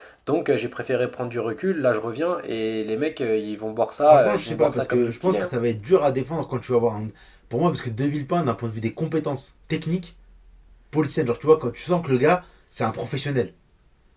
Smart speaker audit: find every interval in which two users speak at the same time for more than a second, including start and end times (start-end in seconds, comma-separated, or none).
4.0-5.5